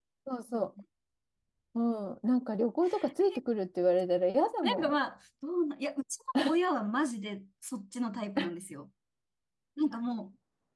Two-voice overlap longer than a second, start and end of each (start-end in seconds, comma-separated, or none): none